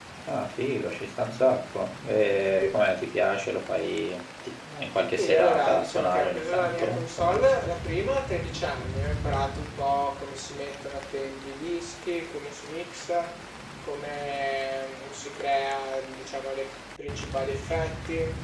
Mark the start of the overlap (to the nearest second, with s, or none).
5 s